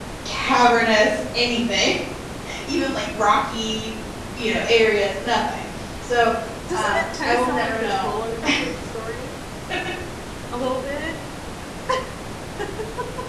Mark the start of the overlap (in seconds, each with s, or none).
6.7 s